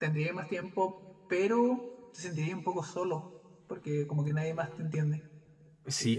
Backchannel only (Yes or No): No